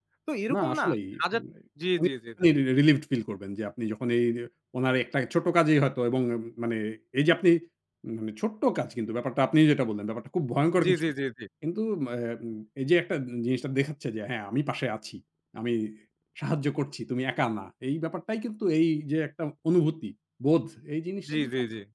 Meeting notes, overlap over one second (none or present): none